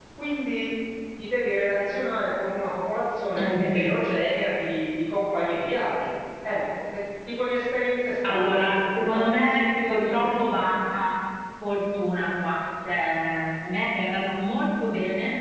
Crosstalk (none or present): present